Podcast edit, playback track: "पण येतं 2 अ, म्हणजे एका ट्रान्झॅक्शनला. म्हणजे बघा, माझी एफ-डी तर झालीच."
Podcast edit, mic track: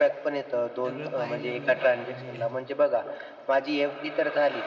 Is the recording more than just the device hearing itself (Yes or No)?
Yes